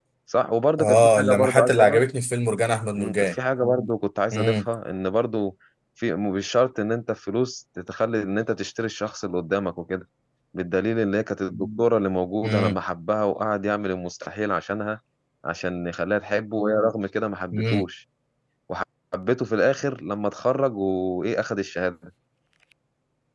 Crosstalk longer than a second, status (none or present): present